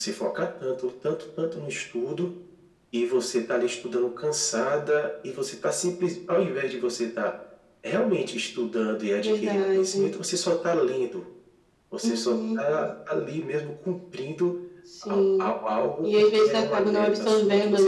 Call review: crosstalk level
present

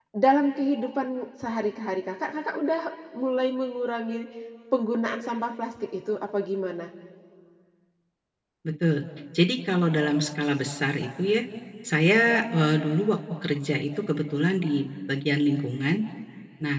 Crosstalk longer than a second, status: none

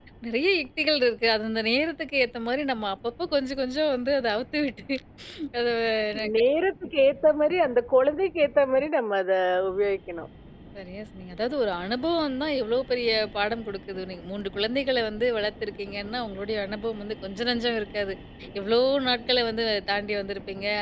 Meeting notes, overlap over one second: none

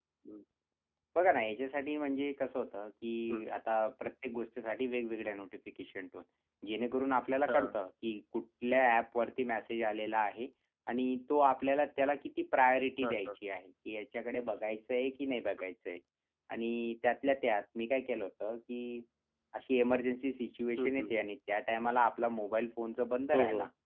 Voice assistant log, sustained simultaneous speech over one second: none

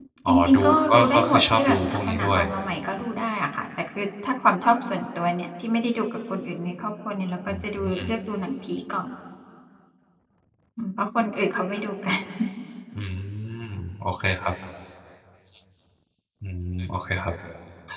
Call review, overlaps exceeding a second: present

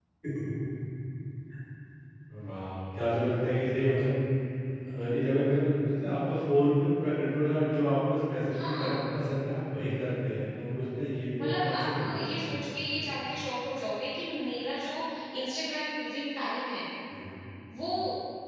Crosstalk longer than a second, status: present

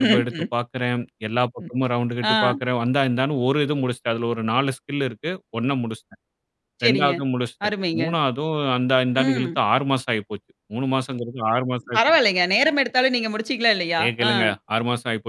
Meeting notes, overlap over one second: none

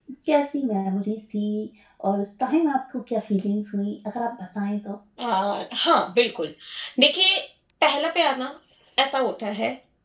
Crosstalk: none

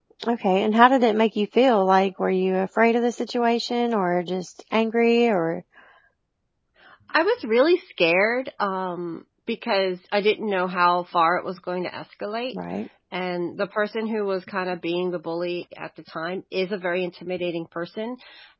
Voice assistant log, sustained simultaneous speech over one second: none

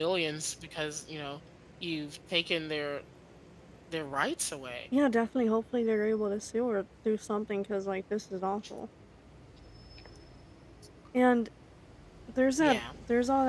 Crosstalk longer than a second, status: none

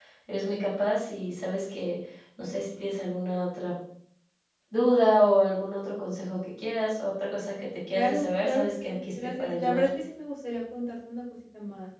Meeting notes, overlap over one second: present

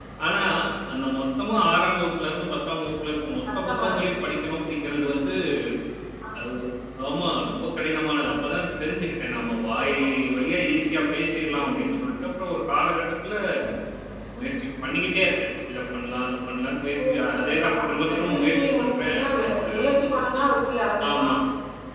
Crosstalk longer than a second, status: present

